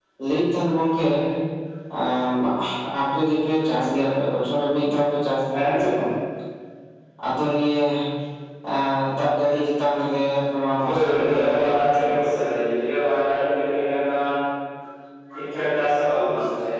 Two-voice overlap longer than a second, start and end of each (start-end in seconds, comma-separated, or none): 10.8-12.2